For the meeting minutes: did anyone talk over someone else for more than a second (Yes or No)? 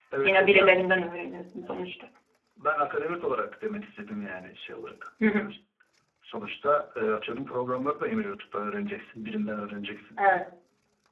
No